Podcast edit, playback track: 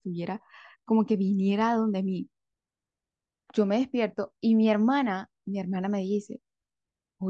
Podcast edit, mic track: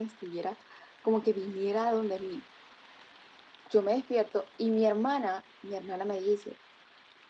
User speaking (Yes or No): No